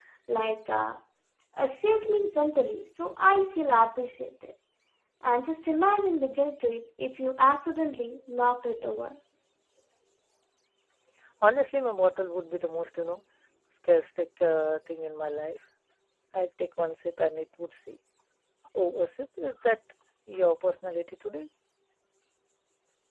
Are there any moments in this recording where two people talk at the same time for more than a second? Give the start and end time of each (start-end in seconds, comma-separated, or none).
none